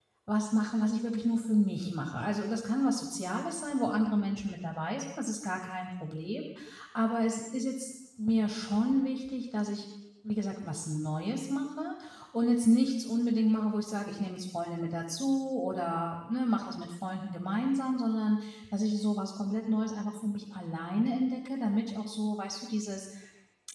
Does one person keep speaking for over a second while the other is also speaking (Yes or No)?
No